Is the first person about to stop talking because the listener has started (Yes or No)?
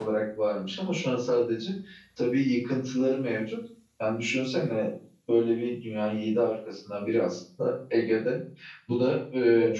No